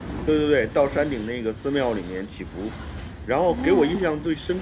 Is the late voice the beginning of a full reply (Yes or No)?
No